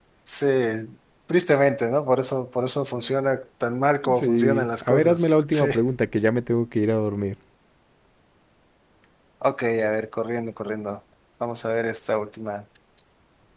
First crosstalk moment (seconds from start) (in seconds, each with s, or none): 4.0 s